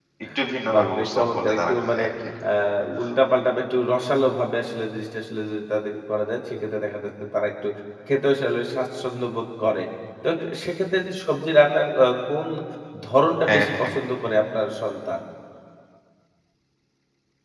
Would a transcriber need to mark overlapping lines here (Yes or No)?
Yes